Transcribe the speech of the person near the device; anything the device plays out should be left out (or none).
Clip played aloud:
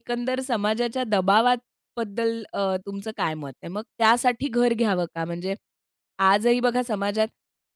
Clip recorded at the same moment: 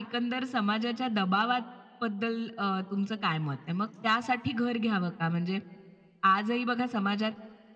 none